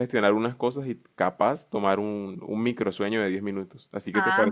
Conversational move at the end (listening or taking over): taking over